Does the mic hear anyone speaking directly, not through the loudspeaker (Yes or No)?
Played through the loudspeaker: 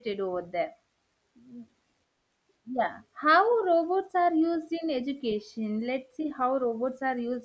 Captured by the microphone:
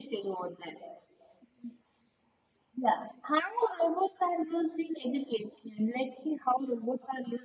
No